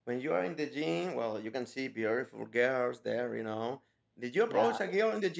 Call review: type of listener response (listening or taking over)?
listening